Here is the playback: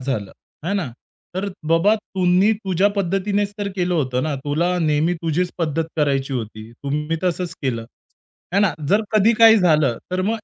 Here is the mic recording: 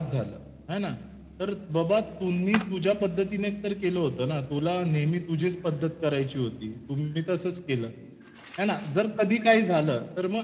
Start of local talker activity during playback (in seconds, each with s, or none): none